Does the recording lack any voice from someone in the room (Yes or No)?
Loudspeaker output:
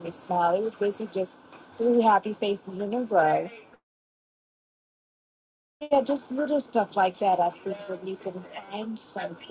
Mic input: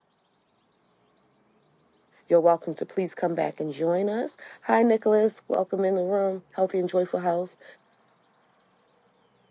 No